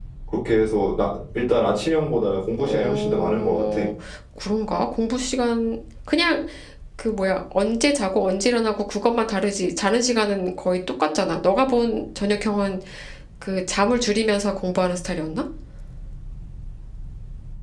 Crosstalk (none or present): present